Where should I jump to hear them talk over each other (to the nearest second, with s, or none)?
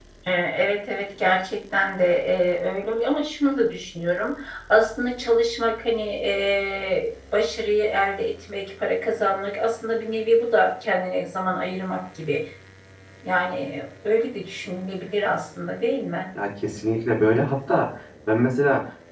none